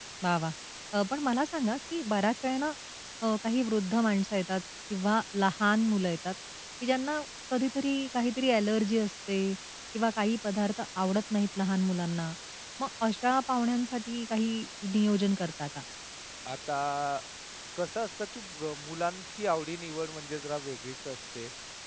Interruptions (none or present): none